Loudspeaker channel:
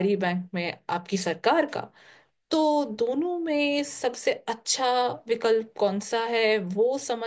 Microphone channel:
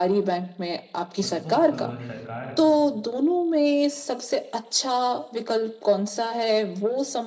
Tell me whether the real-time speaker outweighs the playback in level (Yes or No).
No